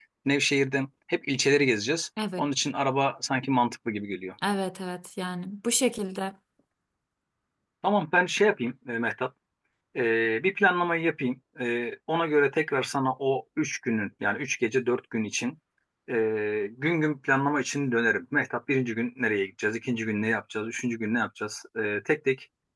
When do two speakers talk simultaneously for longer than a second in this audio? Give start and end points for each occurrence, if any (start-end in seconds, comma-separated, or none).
none